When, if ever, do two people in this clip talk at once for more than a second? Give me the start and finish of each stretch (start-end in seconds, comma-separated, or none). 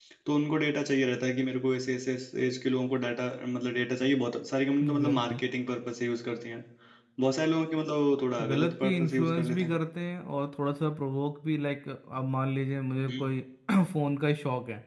8.5-9.7